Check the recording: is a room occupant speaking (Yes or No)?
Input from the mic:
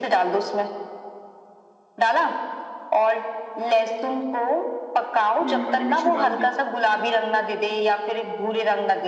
Yes